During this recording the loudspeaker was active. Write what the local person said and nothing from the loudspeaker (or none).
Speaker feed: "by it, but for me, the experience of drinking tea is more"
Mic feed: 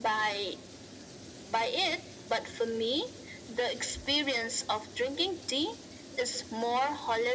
none